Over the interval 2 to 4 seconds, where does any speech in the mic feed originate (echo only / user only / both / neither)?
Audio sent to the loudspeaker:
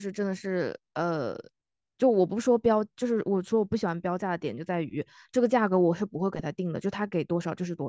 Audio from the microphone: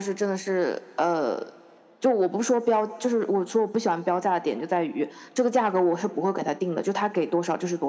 echo only